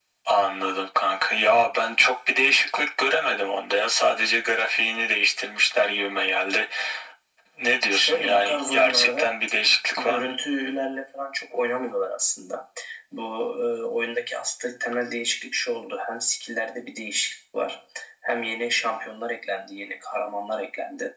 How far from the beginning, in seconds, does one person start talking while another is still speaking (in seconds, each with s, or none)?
7.9 s